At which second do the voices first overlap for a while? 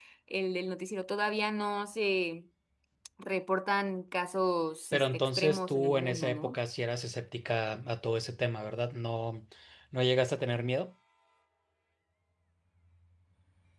4.9 s

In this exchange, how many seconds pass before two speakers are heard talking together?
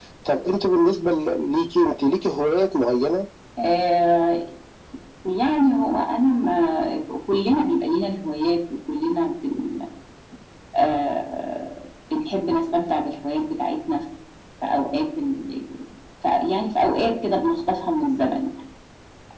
none

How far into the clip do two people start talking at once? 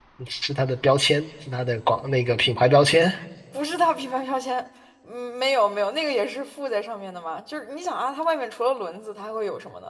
none

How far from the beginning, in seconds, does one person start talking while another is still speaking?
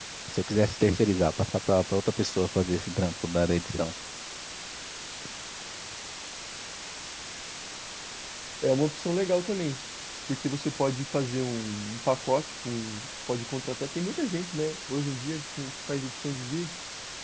none

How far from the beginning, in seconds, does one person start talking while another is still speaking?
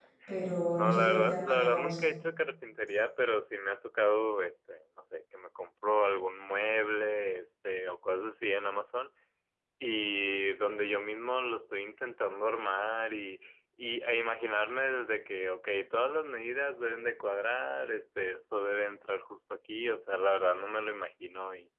0.8 s

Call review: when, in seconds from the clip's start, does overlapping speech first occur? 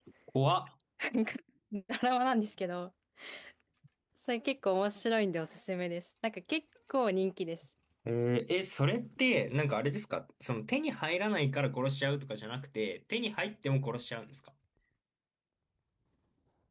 none

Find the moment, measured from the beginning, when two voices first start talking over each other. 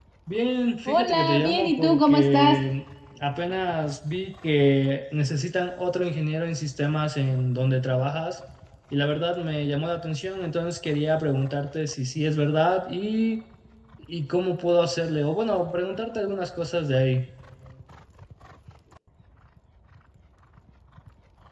0.9 s

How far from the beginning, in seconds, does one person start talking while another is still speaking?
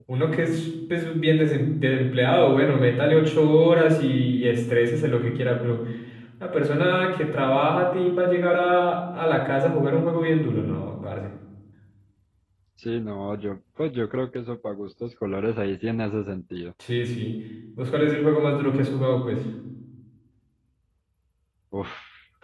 none

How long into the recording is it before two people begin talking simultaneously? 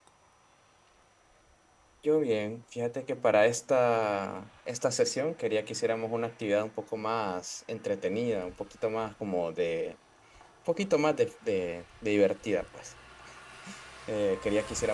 none

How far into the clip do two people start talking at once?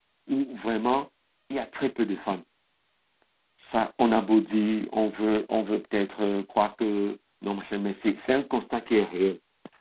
none

